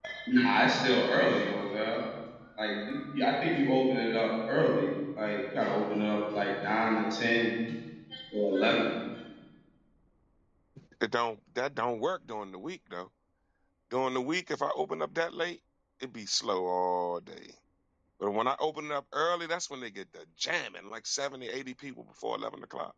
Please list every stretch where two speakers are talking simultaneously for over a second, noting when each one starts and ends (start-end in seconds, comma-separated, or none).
none